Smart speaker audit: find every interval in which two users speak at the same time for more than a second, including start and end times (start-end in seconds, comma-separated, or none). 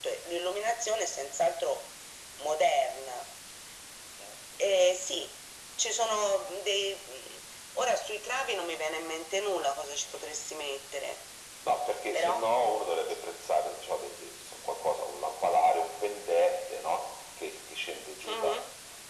none